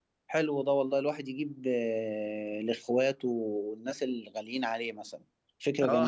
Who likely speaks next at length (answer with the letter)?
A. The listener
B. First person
A